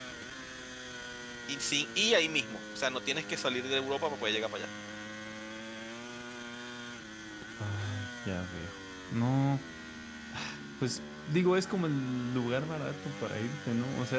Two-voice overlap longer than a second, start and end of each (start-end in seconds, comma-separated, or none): none